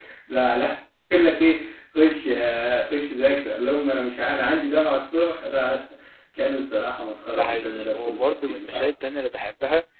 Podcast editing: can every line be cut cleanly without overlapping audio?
No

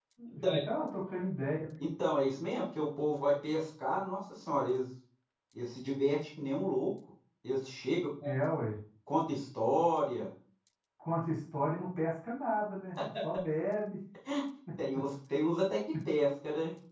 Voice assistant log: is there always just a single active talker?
Yes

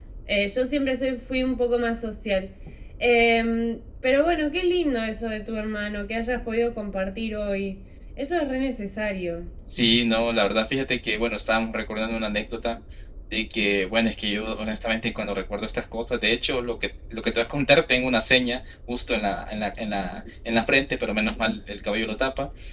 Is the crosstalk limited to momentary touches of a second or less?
Yes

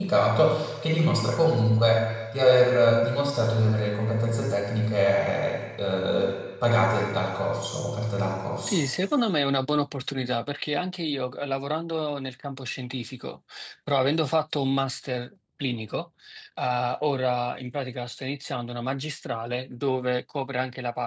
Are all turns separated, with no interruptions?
Yes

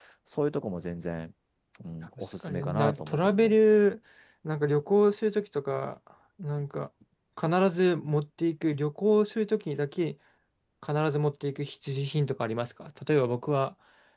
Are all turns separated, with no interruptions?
No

